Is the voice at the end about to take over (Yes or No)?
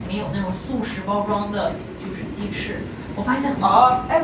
Yes